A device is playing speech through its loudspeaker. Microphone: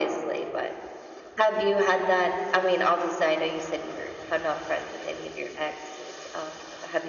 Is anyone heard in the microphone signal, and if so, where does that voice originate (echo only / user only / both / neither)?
echo only